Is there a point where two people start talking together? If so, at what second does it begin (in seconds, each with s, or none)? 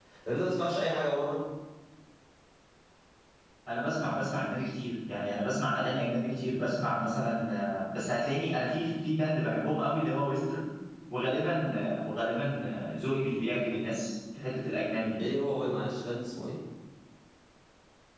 none